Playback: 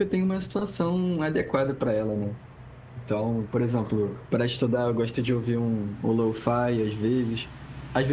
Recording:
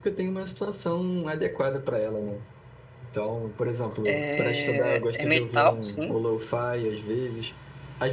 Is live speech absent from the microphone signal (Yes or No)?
No